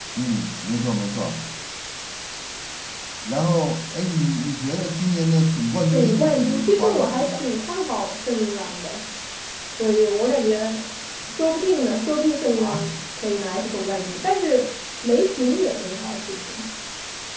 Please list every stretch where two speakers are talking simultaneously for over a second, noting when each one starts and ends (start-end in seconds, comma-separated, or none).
5.9-7.5